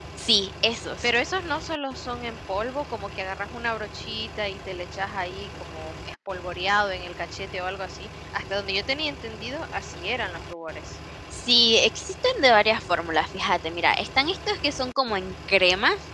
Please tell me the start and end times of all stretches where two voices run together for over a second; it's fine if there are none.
none

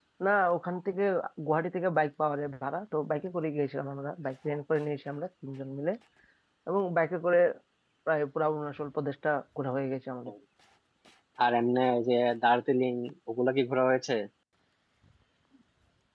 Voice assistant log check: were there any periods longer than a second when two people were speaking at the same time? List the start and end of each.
none

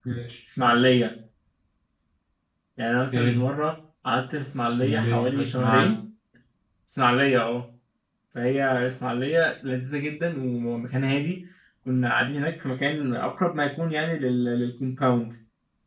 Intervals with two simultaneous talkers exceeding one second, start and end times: 4.6-5.9

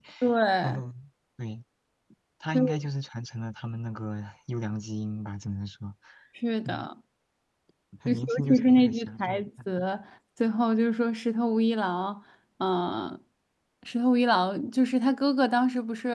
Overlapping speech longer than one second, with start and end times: 8.1-9.4

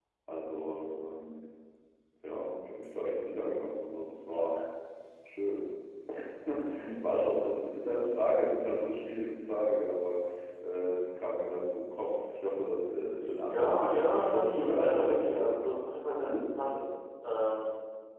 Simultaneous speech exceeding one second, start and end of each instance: 13.5-15.8

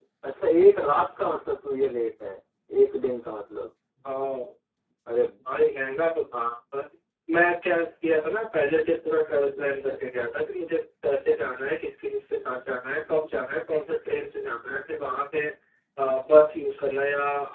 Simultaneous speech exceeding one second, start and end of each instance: none

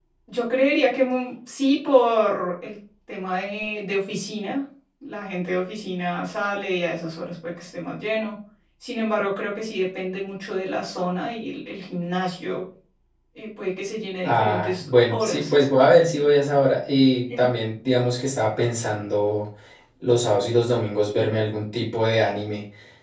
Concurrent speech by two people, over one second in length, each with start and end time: 14.2-15.5

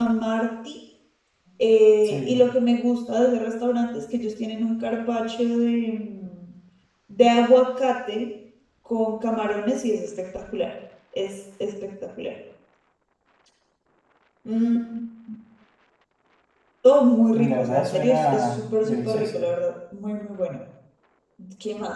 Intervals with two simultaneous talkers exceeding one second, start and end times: 17.4-19.5

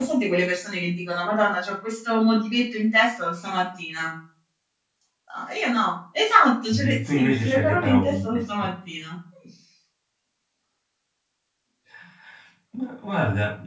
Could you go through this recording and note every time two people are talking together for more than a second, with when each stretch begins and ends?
6.7-8.4

